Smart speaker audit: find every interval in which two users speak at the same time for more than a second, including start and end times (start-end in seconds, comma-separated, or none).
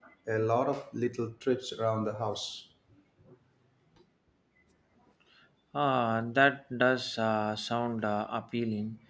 none